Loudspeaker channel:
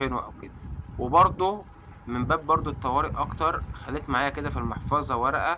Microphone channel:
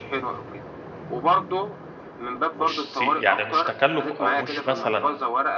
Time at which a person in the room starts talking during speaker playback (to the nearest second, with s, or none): 3 s